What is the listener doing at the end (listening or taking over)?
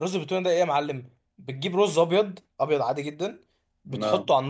listening